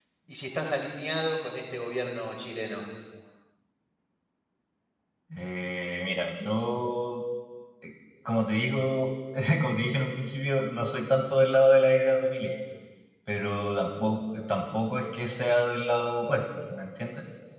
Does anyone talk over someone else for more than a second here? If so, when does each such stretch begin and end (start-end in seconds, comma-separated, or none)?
none